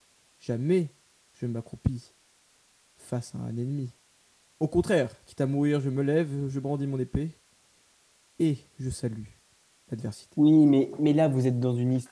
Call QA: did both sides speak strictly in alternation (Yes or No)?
Yes